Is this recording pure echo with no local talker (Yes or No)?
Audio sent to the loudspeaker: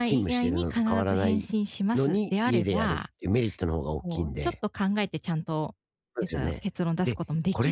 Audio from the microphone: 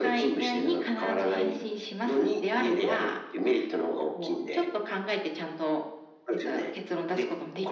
Yes